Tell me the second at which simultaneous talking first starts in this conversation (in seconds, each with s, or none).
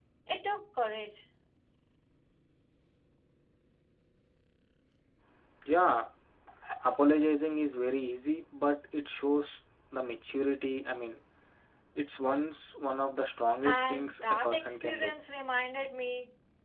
13.6 s